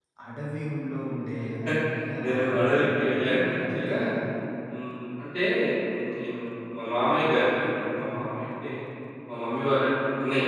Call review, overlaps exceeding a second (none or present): present